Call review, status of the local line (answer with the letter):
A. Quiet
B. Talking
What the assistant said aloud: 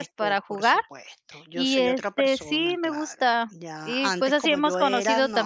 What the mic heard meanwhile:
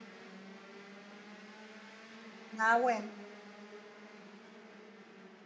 B